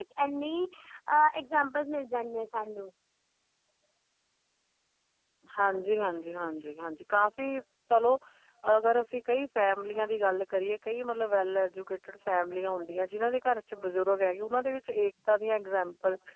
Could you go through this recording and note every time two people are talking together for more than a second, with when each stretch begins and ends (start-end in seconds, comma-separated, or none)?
none